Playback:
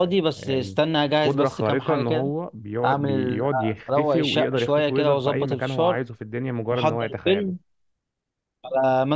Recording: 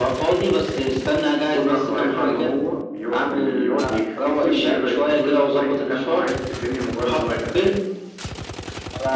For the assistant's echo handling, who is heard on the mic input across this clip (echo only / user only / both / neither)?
echo only